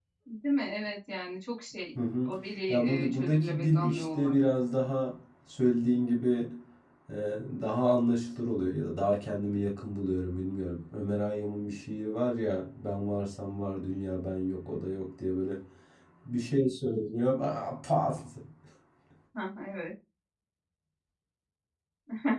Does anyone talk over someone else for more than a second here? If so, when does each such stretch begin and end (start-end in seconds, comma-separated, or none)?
2.7-4.4